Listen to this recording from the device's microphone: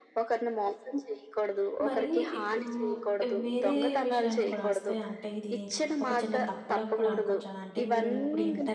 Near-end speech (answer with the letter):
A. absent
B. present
B